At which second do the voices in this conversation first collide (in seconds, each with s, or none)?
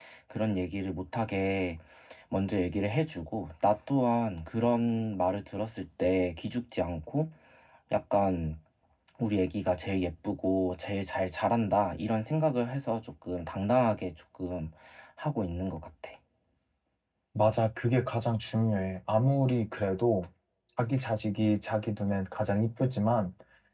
none